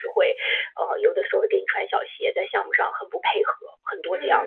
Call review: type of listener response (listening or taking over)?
taking over